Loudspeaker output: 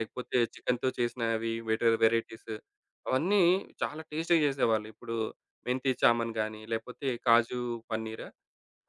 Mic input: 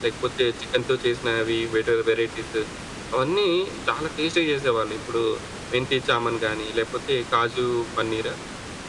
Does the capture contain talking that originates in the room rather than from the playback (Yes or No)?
No